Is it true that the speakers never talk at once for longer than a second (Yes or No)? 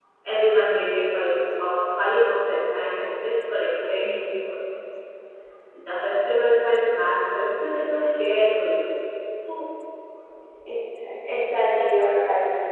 Yes